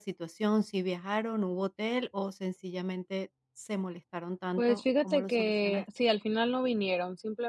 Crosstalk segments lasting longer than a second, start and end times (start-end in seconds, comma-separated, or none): 4.6-5.8